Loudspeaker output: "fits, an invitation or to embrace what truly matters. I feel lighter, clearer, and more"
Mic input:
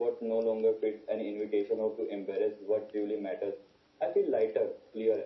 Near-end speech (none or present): none